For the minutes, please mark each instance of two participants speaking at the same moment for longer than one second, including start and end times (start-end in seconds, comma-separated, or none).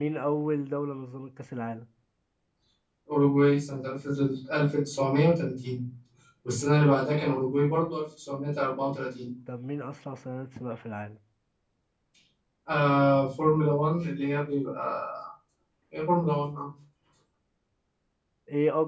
none